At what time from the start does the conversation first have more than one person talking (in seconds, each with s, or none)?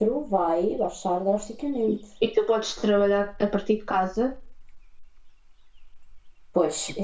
none